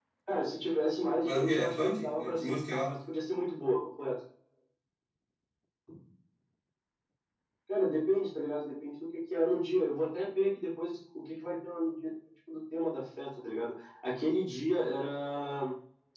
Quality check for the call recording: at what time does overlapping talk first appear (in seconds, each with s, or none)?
1.2 s